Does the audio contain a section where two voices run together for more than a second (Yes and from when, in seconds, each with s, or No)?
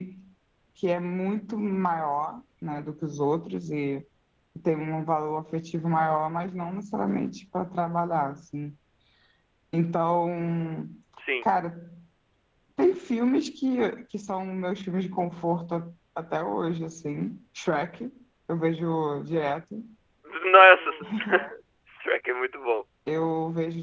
No